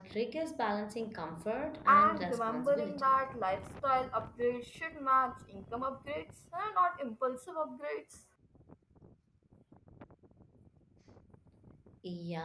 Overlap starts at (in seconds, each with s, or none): 1.9 s